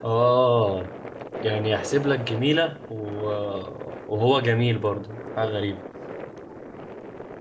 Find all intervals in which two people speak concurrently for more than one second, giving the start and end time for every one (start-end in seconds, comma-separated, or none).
none